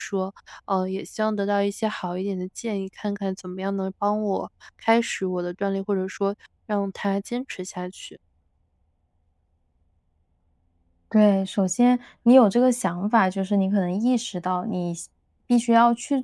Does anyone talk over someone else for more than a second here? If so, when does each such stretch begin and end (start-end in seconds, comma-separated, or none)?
none